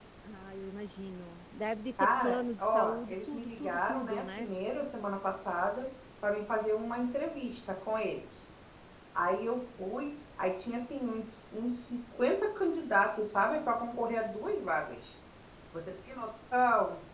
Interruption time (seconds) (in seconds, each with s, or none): 2.0 s